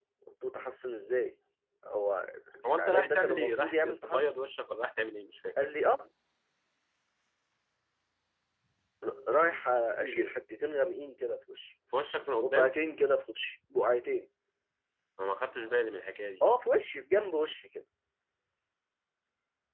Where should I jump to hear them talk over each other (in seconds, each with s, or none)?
2.7 s